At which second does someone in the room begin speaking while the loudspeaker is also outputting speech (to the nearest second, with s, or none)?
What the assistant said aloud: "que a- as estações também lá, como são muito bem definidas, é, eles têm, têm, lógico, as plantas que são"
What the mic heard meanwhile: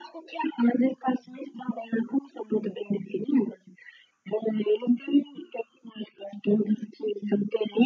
none